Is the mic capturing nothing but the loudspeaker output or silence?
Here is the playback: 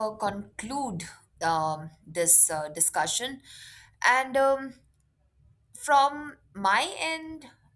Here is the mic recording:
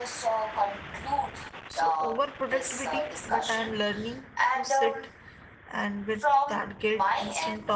No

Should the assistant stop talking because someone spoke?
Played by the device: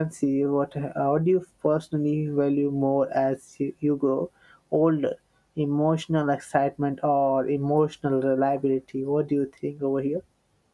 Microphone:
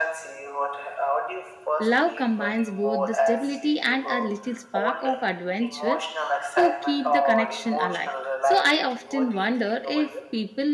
Yes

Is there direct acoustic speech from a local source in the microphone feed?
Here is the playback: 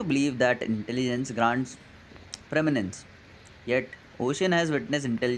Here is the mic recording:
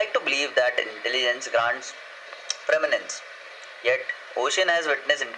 No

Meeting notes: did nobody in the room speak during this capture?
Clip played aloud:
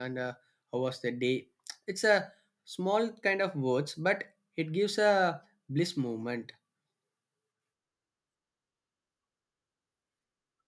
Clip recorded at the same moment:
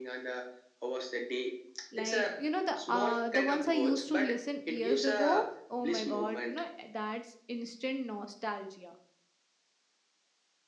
No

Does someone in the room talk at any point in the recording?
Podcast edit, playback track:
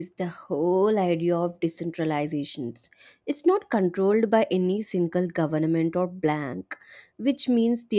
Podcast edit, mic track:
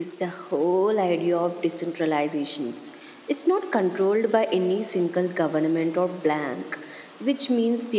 No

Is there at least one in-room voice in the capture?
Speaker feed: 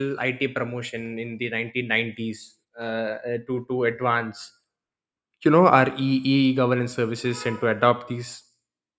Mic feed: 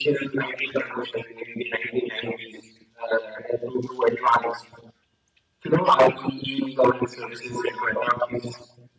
No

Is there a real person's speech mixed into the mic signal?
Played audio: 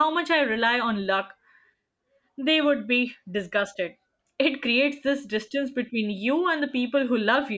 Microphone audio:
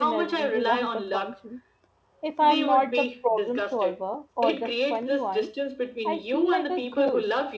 Yes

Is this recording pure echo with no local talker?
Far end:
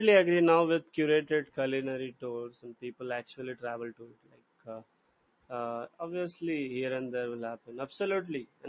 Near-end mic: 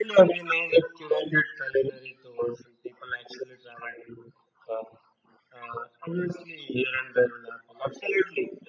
Yes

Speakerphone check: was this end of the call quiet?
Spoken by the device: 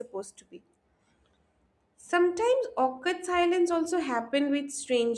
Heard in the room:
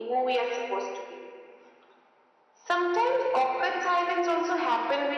Yes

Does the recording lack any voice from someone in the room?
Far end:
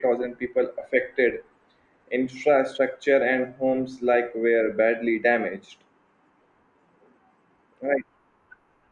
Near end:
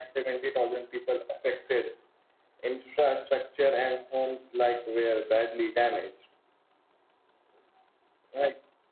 Yes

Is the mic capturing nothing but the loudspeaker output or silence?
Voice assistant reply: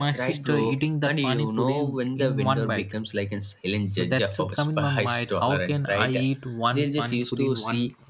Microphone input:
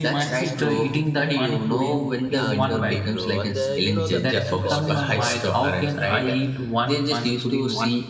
No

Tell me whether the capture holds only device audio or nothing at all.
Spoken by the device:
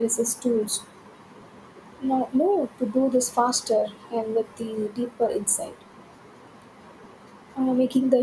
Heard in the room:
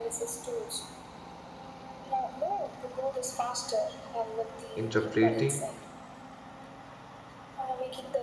No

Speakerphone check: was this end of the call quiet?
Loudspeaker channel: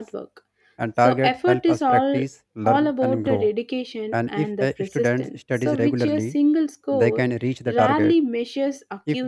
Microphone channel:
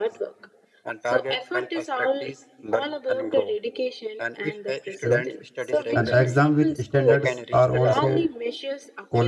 No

